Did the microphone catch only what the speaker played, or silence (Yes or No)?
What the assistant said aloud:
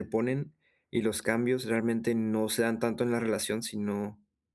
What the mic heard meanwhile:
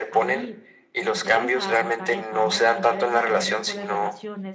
No